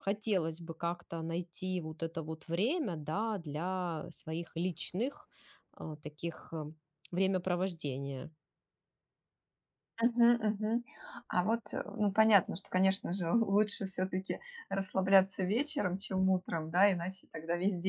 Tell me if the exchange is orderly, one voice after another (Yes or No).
Yes